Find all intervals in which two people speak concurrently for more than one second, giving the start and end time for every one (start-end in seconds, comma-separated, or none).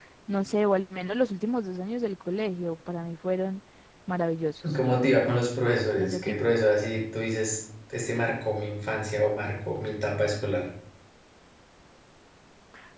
none